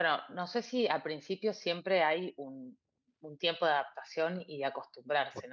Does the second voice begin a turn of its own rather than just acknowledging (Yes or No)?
No